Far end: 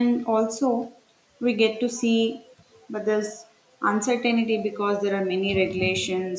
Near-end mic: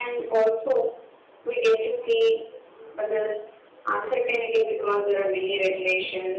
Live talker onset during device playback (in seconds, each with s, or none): none